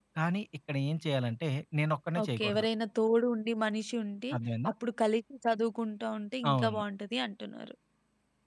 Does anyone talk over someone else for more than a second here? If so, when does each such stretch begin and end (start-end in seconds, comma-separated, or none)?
none